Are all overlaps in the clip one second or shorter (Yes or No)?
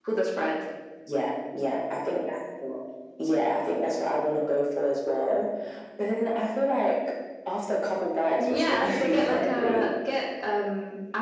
No